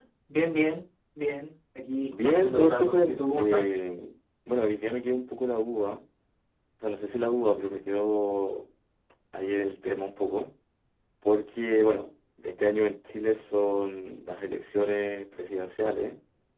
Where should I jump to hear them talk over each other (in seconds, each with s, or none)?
2.1 s